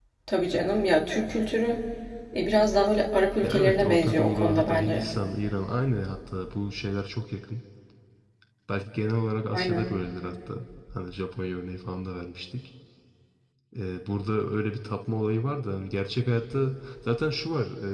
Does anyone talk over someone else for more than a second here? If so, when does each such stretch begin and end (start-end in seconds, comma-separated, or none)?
3.4-5.1